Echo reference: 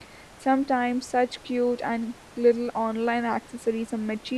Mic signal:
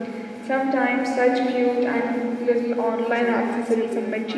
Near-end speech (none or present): present